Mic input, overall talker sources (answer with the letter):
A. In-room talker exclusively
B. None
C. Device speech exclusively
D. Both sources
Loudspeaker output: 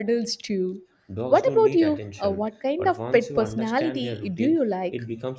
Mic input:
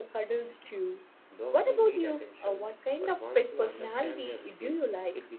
C